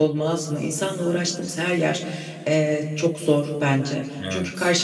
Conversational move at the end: listening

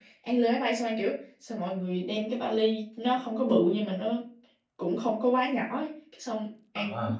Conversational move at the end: listening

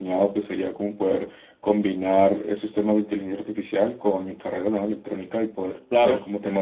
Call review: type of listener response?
listening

